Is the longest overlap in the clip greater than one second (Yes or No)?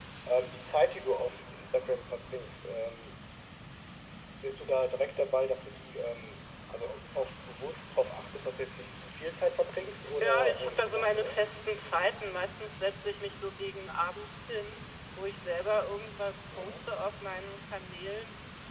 Yes